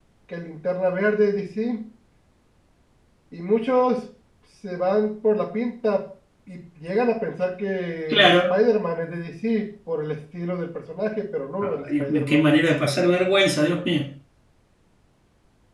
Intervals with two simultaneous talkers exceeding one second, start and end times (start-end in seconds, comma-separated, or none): 11.6-12.9